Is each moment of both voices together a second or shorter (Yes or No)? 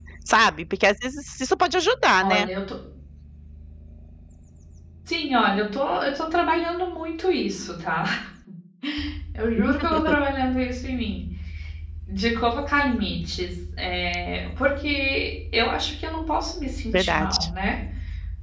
Yes